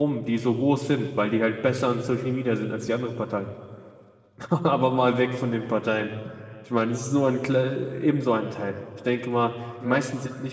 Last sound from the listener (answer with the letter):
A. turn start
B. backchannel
B